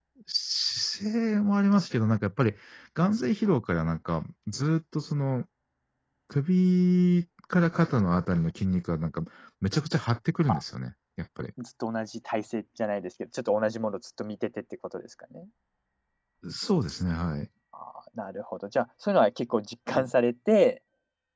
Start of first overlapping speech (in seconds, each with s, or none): none